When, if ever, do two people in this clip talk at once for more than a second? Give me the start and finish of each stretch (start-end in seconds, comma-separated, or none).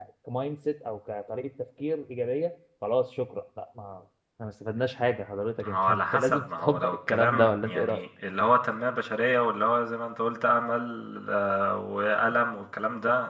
5.6-8.0